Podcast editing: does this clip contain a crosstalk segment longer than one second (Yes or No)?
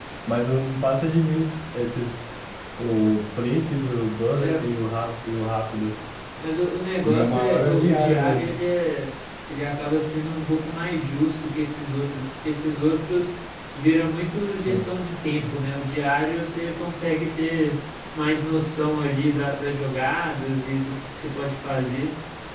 Yes